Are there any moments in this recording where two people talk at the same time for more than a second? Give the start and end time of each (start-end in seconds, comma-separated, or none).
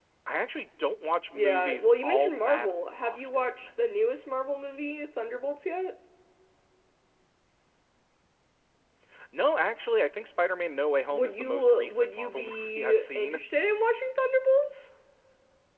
1.4-3.7, 11.1-13.4